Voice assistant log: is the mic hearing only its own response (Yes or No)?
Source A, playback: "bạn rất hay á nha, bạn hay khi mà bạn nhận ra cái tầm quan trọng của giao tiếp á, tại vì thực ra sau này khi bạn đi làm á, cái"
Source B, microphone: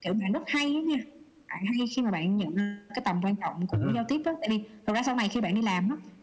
No